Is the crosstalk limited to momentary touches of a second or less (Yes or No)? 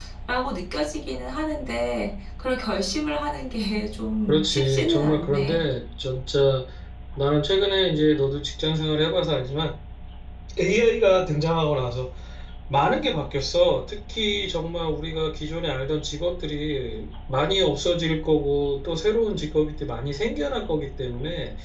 No